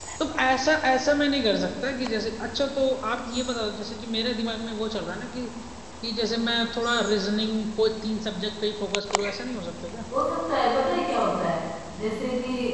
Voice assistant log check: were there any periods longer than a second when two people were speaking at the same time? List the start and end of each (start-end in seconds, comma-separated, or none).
none